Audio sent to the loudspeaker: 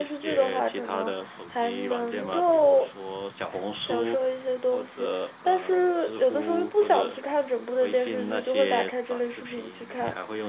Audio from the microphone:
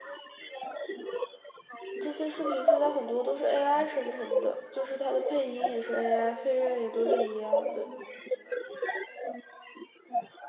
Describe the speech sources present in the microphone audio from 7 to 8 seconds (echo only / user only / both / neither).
both